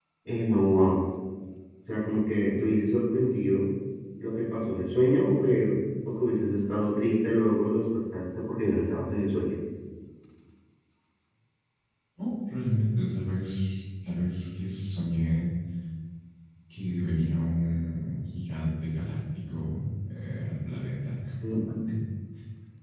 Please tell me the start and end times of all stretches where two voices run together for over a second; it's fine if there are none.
none

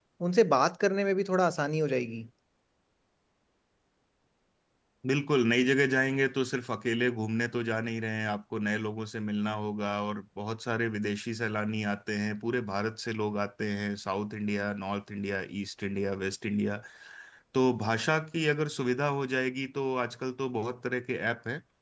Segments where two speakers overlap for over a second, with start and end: none

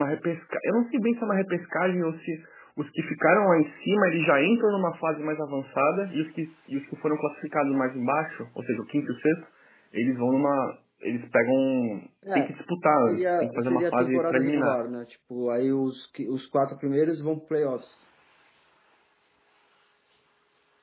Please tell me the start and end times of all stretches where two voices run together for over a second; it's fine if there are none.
13.1-14.8

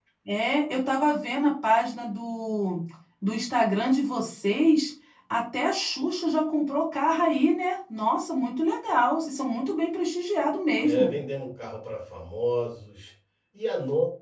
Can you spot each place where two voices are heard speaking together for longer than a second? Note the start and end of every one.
none

